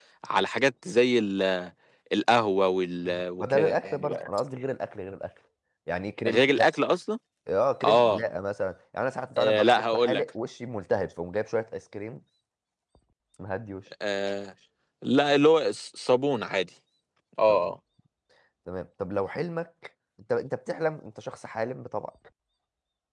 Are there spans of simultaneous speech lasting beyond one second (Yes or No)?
Yes